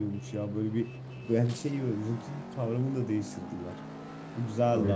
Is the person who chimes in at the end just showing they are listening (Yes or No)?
Yes